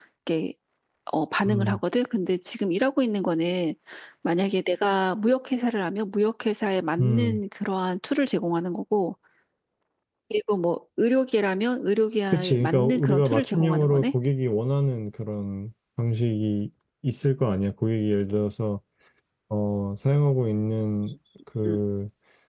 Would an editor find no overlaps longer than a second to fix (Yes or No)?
No